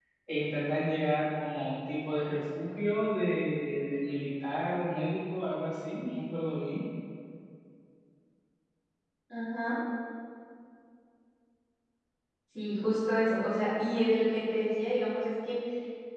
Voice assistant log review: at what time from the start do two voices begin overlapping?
none

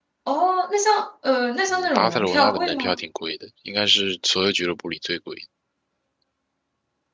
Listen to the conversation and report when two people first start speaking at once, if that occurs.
1.7 s

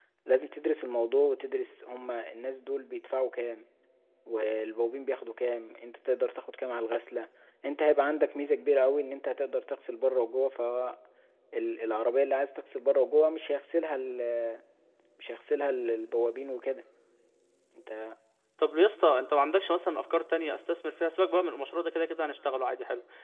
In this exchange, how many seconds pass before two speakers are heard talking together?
none

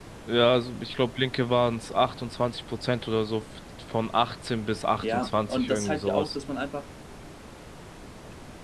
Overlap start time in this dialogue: 5.0 s

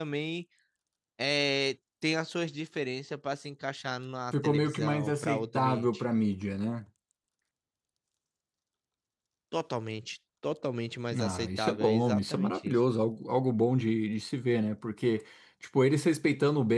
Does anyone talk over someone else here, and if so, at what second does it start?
4.4 s

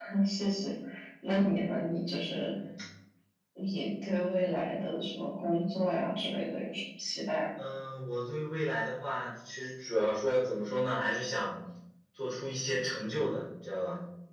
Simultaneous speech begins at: none

